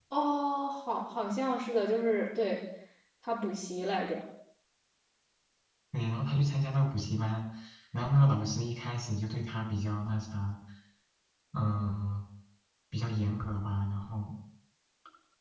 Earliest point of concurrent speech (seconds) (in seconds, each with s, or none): none